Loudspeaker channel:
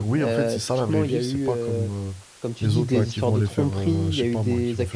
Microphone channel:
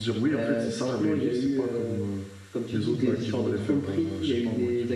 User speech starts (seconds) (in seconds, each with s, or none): none